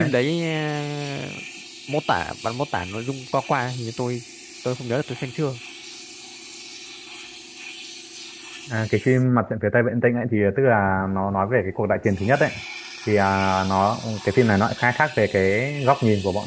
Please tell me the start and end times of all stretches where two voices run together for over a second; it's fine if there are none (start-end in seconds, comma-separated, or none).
none